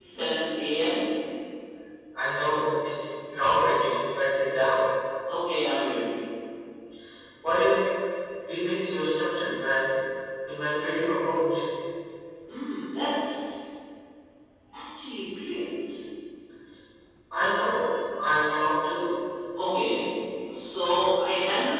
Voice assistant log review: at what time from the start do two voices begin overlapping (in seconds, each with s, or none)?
none